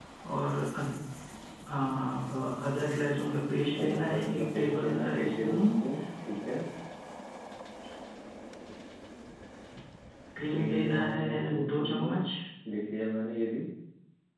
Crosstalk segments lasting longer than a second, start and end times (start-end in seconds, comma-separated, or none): 3.8-5.6, 10.5-12.3